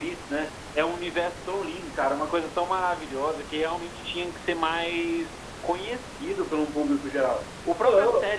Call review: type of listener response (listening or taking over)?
listening